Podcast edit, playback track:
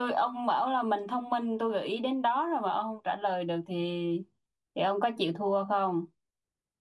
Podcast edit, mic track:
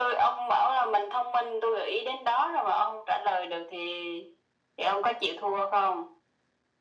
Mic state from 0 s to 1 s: echo only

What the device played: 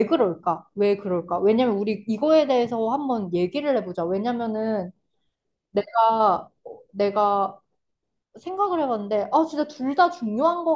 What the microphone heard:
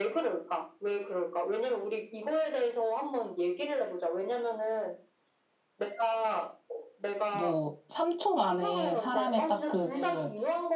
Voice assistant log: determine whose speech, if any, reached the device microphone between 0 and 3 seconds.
echo only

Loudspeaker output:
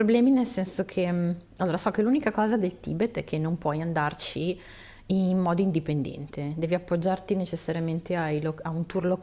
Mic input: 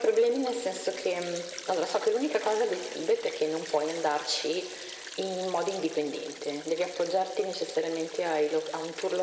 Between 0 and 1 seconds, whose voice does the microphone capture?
echo only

